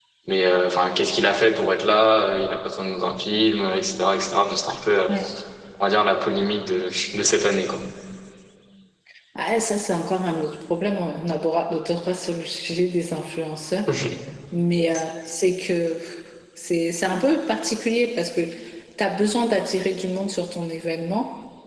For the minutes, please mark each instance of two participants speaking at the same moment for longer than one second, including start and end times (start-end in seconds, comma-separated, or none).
none